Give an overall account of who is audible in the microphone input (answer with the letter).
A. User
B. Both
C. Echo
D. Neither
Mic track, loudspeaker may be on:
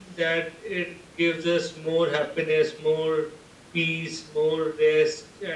C